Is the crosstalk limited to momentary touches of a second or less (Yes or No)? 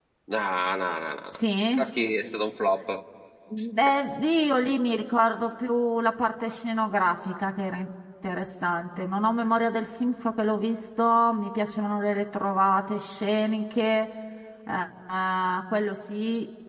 Yes